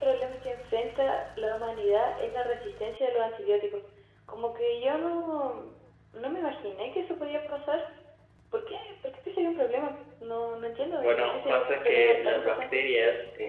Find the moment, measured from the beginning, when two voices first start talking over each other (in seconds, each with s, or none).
11.0 s